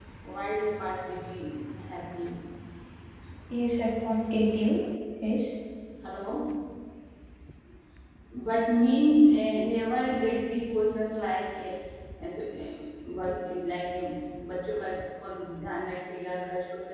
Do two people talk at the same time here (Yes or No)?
No